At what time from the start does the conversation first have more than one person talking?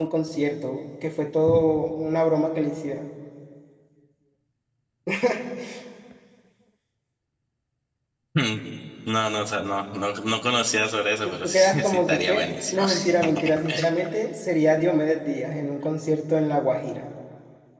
11.2 s

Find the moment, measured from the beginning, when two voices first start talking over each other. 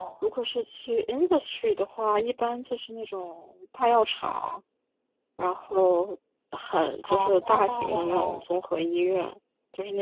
7.0 s

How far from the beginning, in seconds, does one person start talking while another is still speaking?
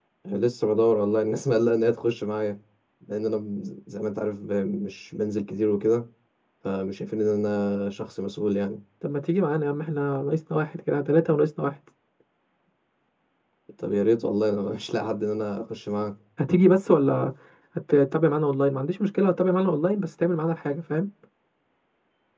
none

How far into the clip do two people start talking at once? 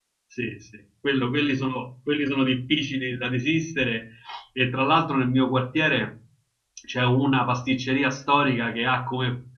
none

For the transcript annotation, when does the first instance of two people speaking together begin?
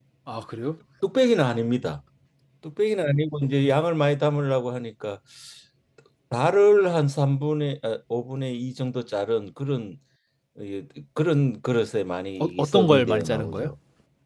12.4 s

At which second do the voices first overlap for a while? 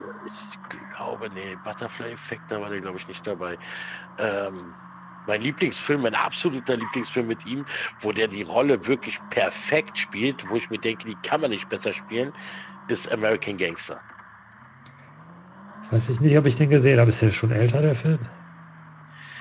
none

